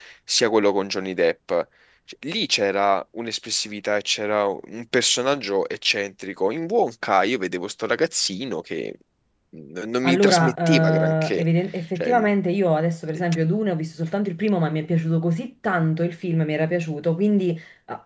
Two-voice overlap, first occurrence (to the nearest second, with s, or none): 10 s